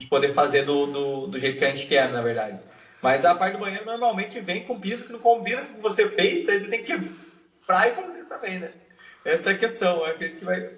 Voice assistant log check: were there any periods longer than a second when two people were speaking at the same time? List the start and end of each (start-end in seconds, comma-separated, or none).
none